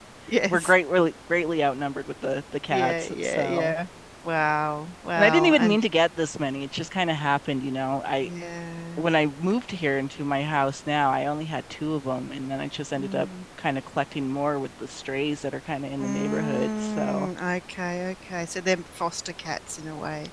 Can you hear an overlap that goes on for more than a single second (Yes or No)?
Yes